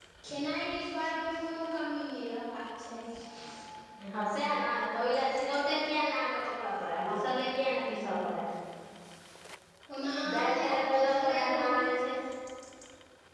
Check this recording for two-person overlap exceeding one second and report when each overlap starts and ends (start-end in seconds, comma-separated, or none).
10.3-11.8